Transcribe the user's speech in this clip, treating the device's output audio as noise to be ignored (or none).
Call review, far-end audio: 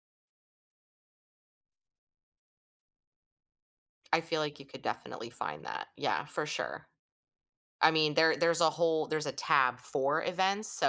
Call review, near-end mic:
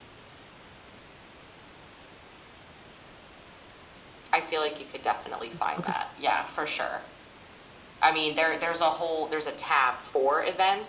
Hm. Okay.